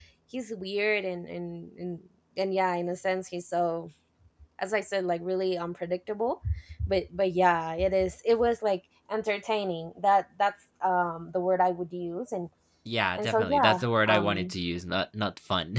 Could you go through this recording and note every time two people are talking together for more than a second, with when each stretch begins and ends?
13.2-14.5

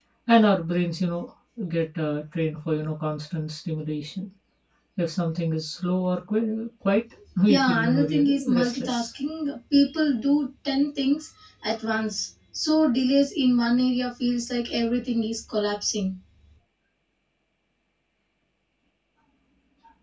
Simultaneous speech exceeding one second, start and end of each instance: 7.5-9.1

